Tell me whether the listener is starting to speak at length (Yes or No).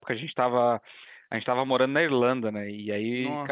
No